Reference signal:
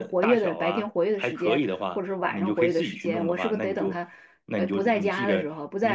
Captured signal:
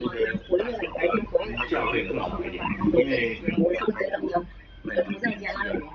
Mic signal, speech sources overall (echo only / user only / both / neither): both